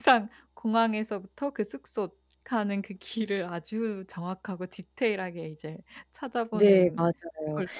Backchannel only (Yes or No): No